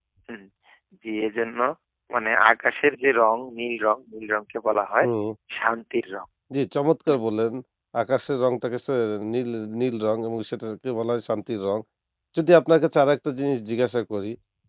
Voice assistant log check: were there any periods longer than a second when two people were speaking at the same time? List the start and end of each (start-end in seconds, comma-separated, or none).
none